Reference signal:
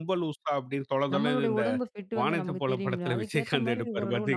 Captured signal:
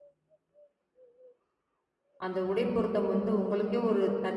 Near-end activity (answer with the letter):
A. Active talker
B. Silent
A